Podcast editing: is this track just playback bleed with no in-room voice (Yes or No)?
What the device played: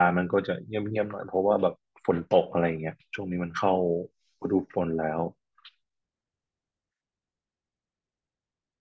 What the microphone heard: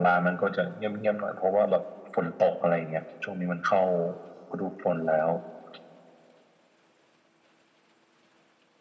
Yes